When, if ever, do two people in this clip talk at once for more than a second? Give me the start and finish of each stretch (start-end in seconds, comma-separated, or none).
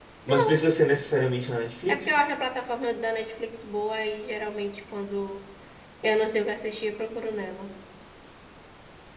none